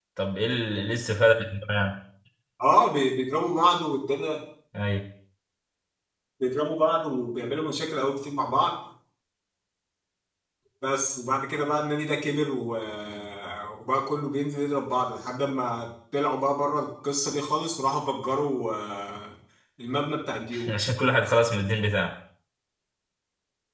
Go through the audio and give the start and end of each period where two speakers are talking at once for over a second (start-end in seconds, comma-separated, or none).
none